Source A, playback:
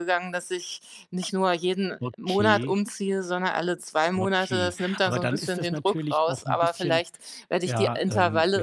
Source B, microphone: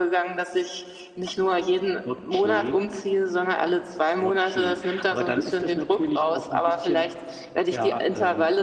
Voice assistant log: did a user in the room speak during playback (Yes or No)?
No